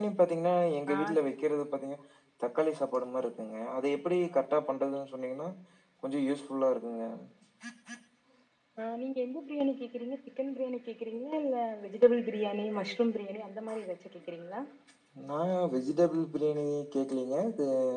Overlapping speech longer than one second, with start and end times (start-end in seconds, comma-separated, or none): none